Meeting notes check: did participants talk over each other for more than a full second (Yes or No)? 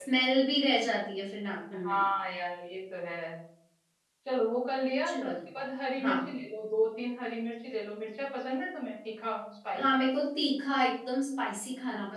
No